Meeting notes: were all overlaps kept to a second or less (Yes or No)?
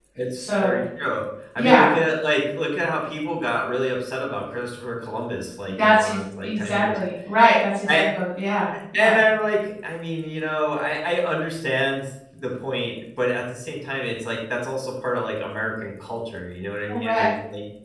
No